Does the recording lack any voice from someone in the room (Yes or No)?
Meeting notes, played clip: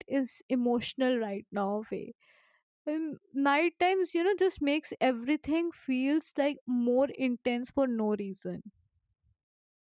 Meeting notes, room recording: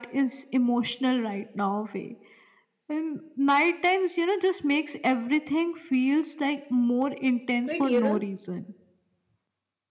No